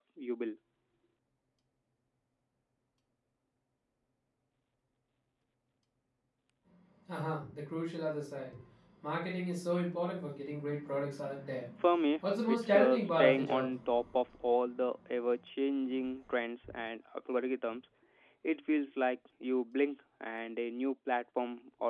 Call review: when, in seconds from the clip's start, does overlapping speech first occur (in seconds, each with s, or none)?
12.4 s